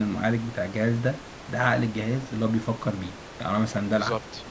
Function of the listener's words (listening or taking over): listening